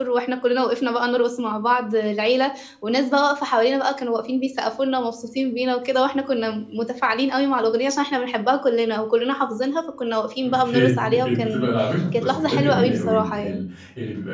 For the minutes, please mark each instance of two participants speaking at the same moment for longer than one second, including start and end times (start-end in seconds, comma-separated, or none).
10.5-11.7, 12.2-13.6